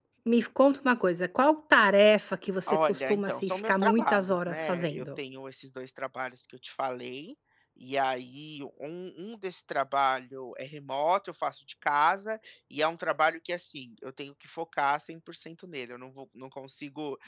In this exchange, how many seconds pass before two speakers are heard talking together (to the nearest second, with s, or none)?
3 s